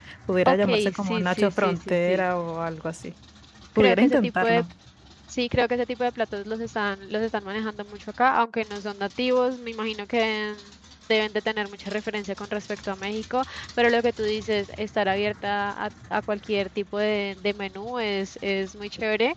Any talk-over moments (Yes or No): Yes